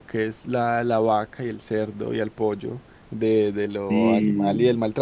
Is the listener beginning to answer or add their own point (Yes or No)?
No